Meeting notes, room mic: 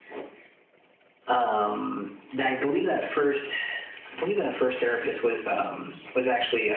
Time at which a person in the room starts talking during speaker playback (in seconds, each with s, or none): none